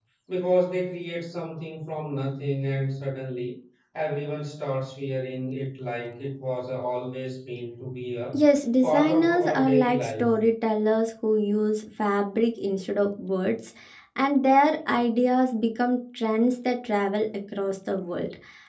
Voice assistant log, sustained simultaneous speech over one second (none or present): present